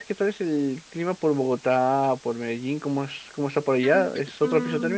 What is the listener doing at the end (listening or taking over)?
taking over